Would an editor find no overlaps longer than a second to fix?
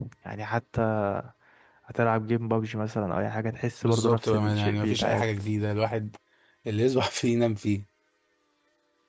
No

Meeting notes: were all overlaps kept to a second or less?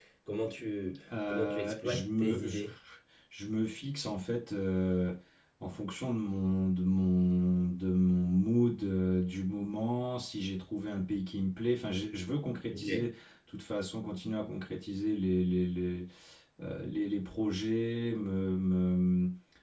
No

